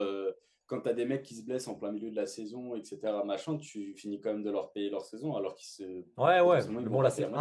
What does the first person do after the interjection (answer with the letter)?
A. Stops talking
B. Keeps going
A